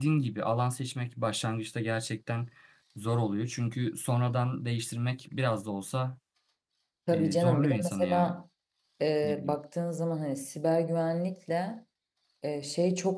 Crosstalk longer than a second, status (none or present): present